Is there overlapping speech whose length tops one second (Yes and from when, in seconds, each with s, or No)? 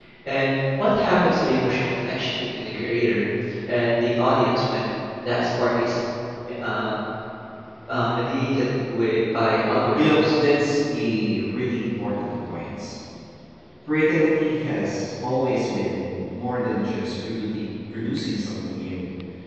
No